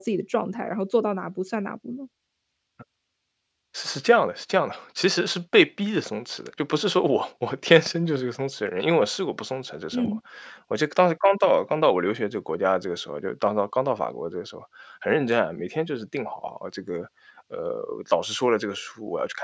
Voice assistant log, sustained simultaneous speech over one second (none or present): none